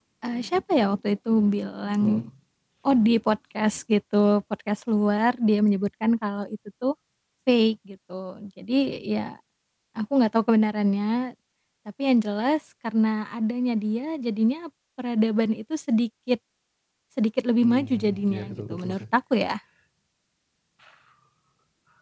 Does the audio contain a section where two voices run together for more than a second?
Yes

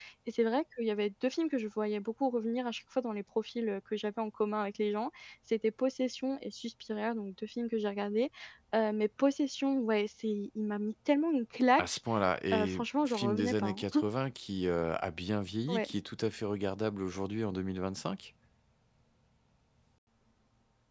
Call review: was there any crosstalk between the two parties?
Yes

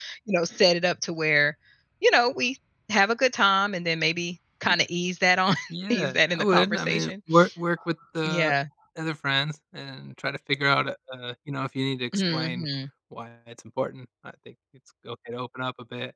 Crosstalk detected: Yes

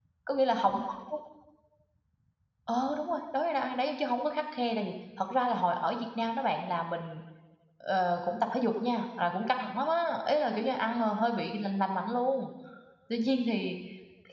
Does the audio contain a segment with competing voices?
No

